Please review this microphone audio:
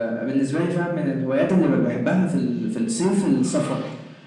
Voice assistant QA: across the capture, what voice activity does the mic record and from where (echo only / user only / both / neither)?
echo only